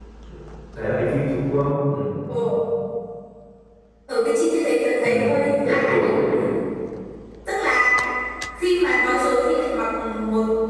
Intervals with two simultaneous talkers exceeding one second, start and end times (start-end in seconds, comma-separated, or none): none